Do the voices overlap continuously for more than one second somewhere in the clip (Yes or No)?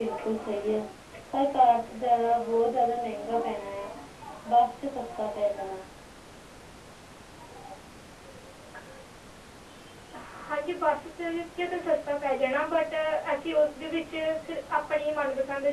No